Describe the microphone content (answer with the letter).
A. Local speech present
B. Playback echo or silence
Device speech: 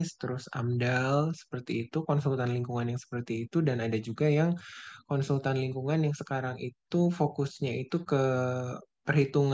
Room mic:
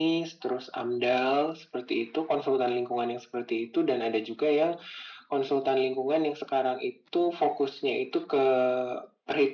B